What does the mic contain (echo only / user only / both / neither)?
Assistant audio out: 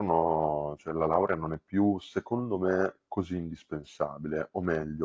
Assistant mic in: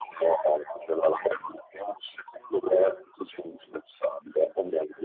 echo only